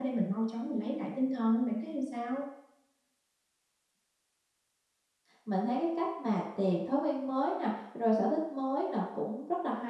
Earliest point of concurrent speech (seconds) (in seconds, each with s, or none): none